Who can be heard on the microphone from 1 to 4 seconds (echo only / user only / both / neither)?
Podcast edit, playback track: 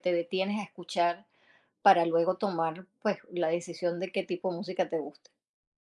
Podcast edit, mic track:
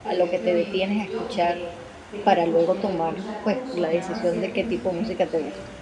both